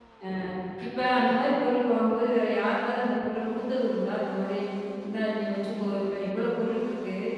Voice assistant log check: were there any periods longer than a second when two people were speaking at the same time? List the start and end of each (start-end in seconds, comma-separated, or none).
none